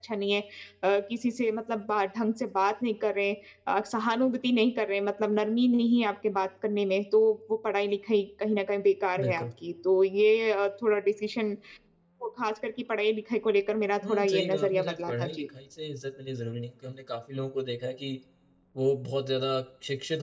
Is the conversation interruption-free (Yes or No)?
No